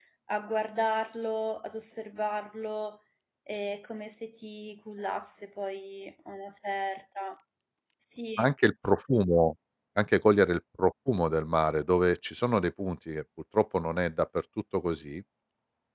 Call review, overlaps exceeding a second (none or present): none